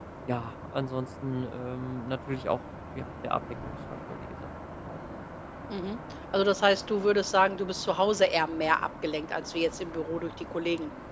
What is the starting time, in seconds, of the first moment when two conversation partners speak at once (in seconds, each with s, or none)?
none